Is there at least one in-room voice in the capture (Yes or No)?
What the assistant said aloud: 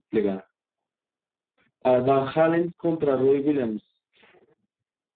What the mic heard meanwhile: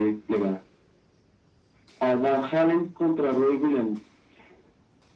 No